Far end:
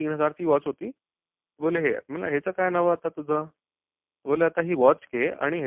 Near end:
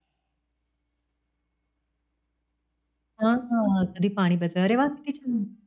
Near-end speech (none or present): present